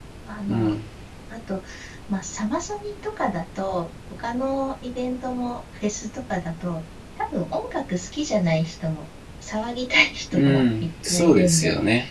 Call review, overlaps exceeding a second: present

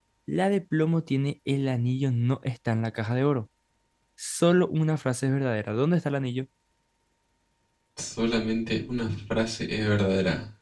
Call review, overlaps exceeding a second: none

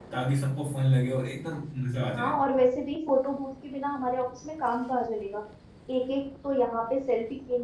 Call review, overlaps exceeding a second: none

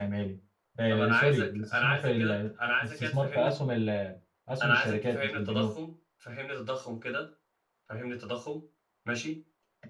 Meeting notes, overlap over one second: present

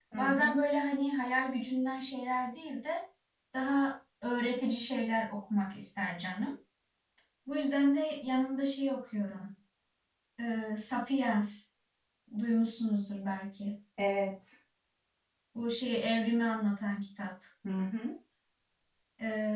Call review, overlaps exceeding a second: none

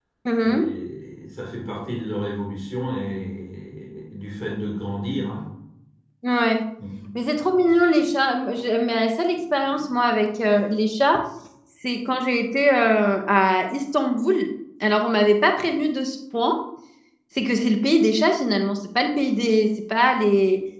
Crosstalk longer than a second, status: none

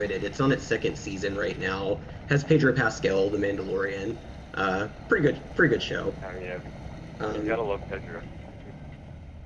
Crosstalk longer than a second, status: none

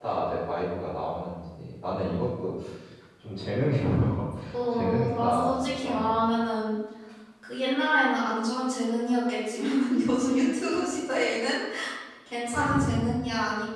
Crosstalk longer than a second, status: present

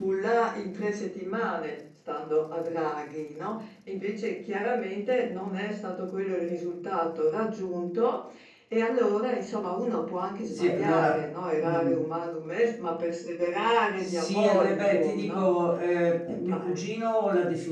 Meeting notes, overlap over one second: present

